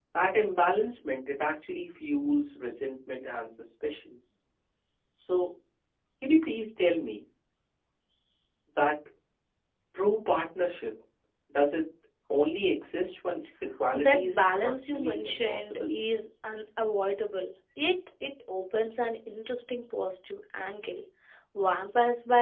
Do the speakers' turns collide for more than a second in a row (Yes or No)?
Yes